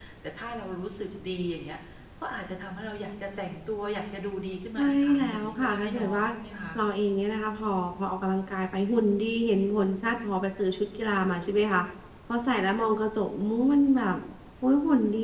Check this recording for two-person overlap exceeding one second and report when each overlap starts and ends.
4.8-6.2

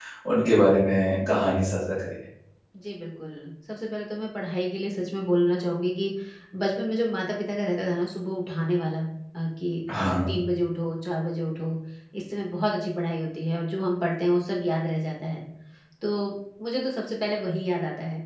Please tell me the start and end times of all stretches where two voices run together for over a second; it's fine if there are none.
none

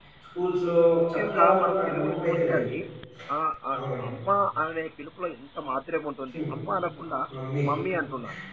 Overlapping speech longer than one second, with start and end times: 1.1-2.6

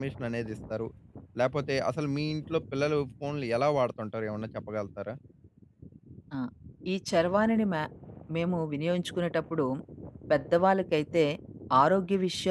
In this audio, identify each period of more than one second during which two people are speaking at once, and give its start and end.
none

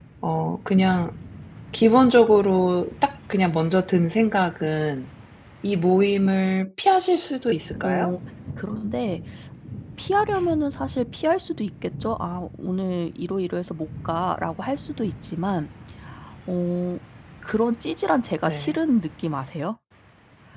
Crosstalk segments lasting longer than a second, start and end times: none

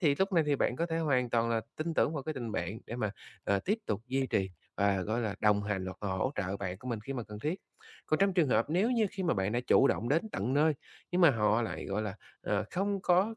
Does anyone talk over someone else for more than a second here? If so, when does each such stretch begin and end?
none

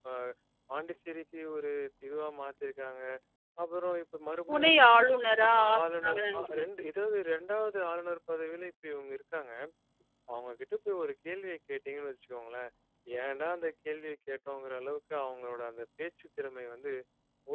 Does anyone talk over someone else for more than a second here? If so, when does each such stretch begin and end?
5.5-6.7

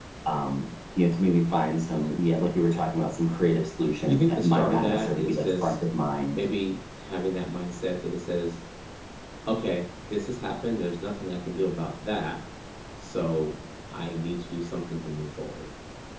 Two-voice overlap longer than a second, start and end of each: 4.1-5.8

